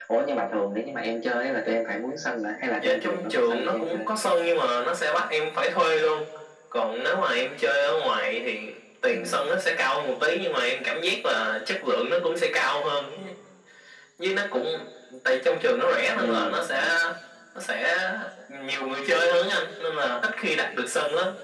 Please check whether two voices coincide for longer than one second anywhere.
Yes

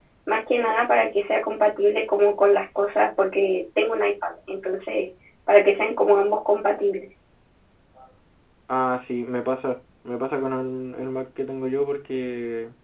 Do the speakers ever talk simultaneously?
No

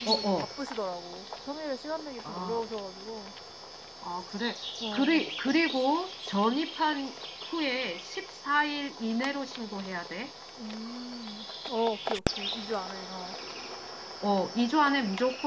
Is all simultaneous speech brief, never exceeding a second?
Yes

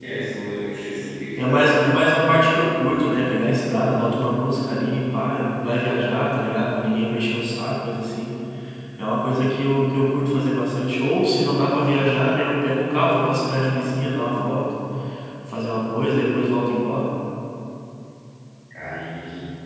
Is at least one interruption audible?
Yes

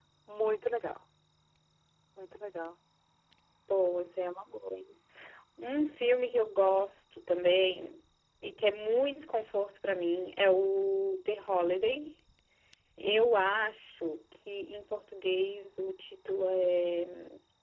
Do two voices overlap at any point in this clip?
No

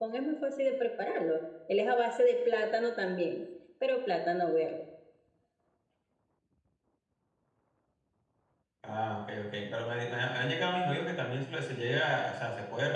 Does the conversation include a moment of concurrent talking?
No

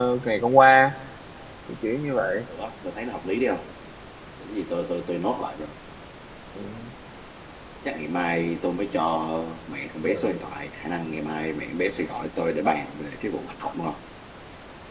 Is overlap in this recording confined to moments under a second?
Yes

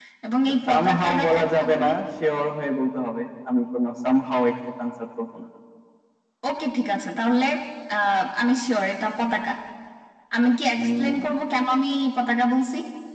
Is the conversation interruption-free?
No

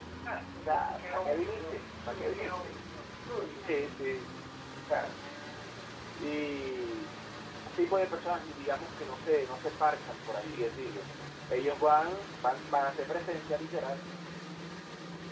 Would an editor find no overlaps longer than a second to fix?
No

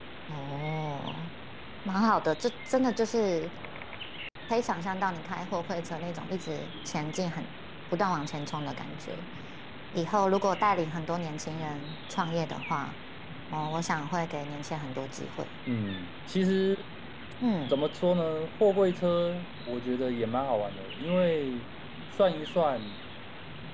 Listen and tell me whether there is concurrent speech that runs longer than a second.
No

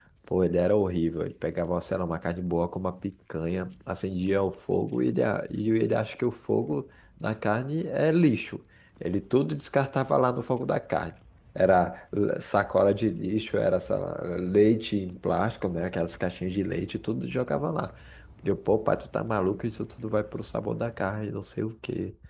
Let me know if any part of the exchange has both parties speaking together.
No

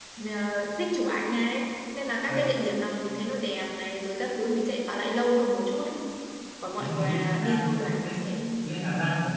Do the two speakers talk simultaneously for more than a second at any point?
Yes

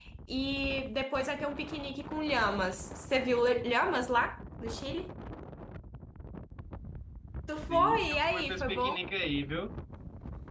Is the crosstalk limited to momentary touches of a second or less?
No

